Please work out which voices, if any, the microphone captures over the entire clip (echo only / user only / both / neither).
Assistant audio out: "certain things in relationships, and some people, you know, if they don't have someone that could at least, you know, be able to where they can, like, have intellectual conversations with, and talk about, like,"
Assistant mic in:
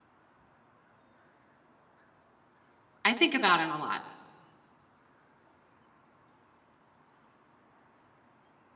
user only